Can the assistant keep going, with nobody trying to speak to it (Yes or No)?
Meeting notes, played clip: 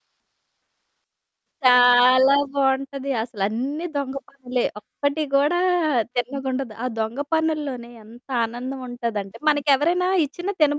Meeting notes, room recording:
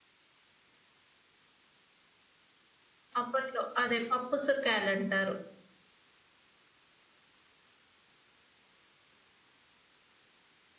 No